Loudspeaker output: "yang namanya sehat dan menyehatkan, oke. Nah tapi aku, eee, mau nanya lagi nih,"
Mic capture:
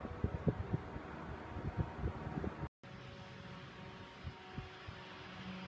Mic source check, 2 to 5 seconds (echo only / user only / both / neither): neither